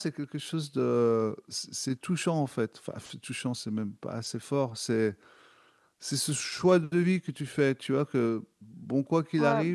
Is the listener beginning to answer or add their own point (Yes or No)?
No